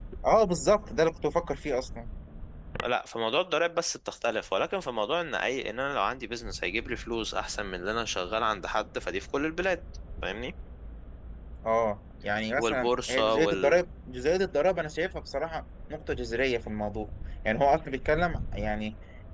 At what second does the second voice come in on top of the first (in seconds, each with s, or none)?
12.6 s